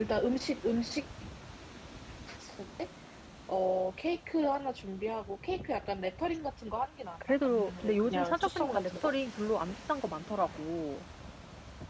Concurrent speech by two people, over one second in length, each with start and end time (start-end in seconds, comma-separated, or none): 7.4-9.1